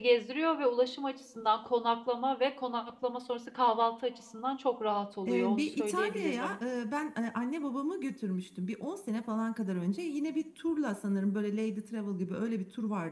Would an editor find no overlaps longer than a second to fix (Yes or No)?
No